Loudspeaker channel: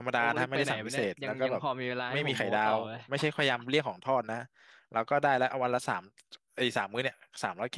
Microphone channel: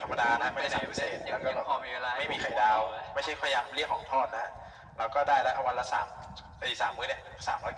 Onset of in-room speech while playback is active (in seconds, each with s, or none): none